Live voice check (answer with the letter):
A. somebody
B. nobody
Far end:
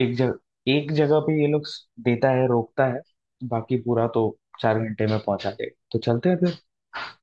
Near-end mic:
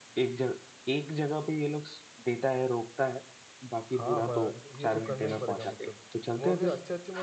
A